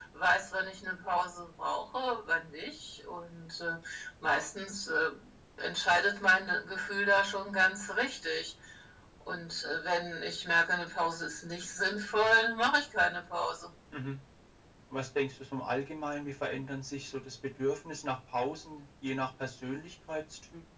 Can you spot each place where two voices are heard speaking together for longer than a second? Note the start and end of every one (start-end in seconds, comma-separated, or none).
none